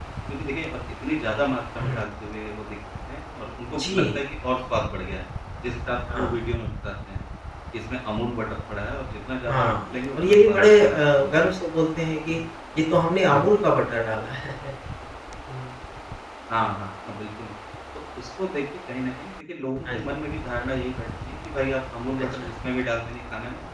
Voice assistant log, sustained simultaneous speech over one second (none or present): present